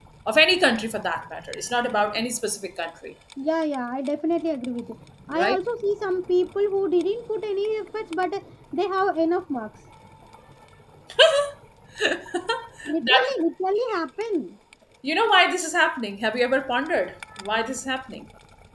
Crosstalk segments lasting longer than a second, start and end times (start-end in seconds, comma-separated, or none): none